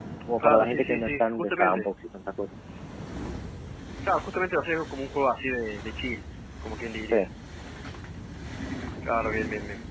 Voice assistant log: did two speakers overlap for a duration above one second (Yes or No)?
Yes